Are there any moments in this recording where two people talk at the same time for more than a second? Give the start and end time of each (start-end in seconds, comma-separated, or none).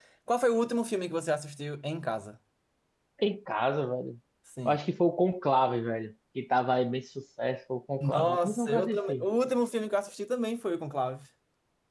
8.0-9.2